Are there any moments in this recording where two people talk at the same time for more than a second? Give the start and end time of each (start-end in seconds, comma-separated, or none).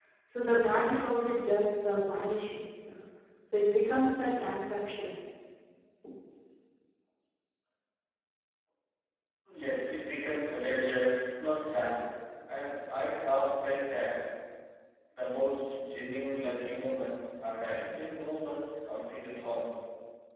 none